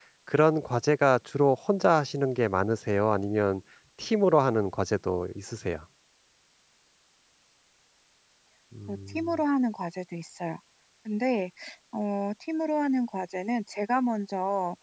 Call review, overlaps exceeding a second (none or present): none